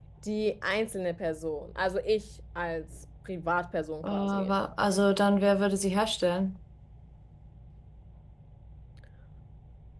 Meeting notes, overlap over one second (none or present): none